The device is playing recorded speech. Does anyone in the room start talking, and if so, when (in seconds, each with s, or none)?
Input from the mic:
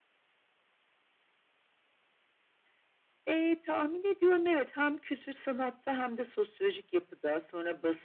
none